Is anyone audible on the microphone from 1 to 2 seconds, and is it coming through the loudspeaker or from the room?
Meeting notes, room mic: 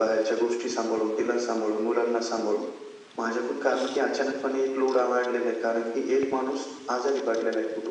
echo only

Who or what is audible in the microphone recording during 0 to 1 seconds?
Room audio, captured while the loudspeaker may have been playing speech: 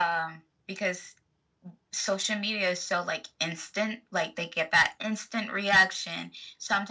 echo only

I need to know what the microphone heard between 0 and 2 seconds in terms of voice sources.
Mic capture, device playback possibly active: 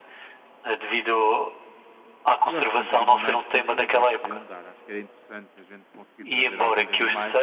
echo only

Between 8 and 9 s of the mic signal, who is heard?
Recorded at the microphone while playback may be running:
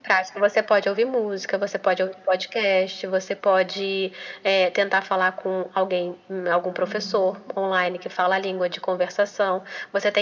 echo only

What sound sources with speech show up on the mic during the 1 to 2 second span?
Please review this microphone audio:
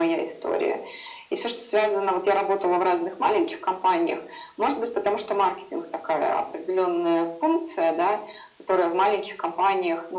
echo only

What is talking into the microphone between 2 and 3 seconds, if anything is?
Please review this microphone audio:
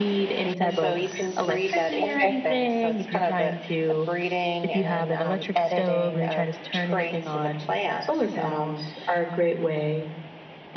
both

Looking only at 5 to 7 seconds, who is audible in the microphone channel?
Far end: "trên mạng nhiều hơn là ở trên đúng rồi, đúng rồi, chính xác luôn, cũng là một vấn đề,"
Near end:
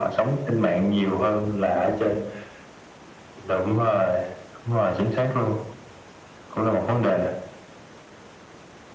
echo only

